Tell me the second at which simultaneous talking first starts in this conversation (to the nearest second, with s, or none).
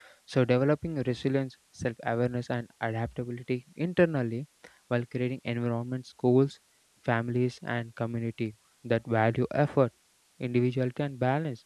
none